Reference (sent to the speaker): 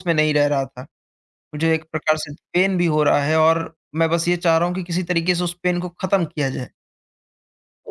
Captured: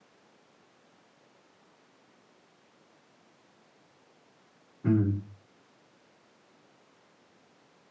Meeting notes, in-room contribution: present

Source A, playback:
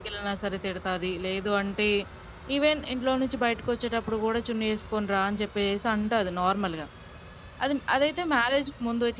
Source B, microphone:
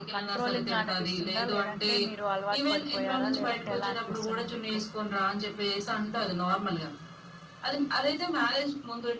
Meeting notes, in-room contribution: present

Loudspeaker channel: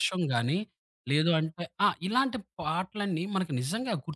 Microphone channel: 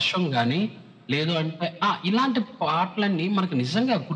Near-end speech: none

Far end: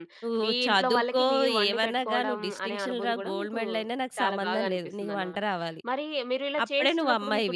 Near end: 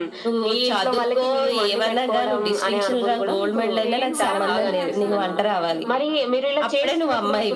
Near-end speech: present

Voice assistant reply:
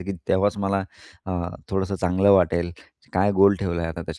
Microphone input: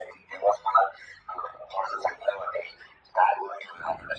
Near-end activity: none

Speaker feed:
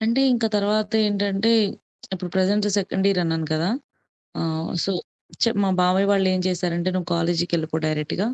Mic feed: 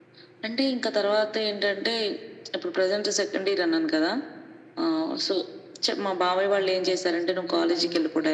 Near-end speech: present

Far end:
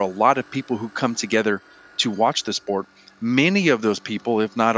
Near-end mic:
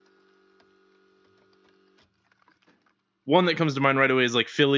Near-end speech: present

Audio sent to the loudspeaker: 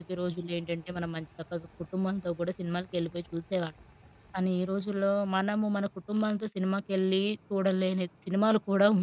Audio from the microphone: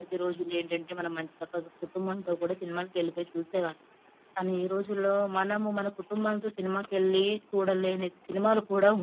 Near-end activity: none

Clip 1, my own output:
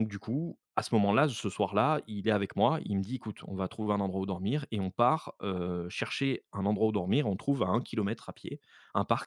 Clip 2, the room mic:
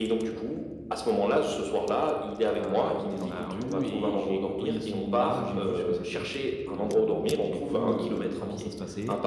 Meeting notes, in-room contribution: present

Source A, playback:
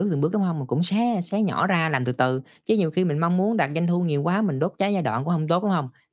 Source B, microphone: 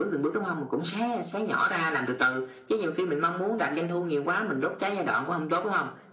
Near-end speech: none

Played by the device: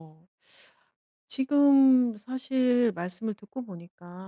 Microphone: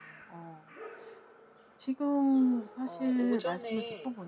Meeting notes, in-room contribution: present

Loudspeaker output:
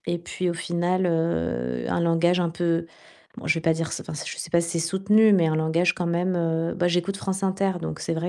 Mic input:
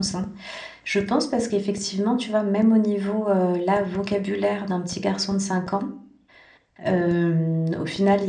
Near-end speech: present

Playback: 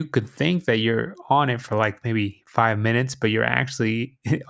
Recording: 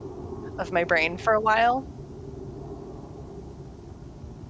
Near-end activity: present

